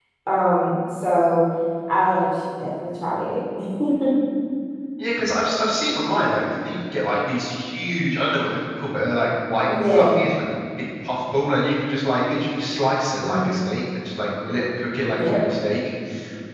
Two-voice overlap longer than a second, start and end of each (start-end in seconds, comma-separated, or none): none